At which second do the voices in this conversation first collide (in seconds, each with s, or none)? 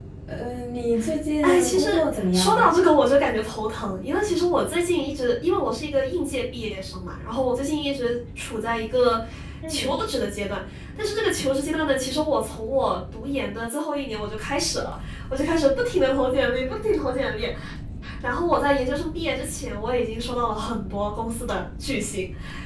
1.4 s